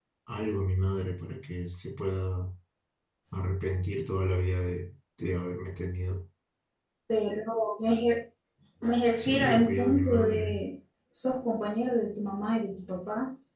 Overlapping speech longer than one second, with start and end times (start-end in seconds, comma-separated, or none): 9.2-10.6